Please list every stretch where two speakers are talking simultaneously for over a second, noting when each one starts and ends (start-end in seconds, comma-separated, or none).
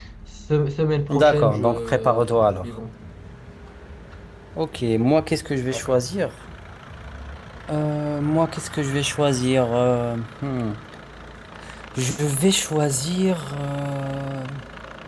1.1-2.7